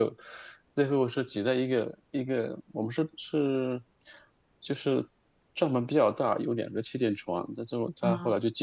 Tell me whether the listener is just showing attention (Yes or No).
Yes